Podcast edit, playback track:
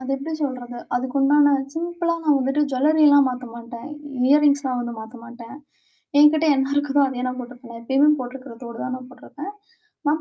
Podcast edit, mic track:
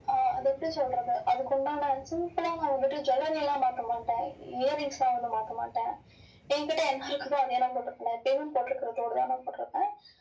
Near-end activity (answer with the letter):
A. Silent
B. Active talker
A